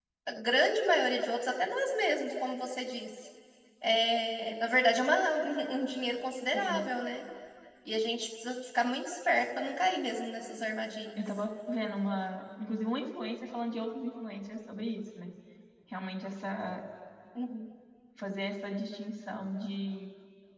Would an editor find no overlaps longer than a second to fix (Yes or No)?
Yes